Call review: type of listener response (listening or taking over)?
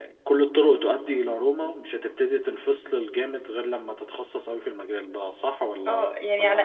taking over